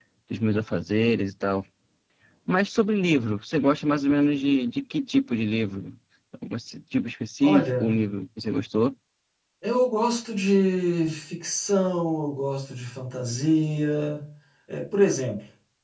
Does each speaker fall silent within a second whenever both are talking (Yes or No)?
Yes